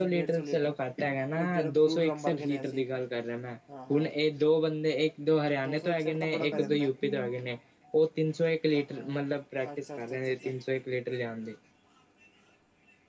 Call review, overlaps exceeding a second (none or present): present